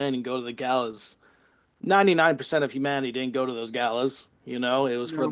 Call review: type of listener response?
listening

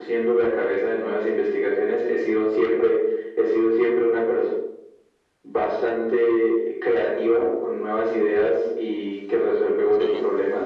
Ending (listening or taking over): listening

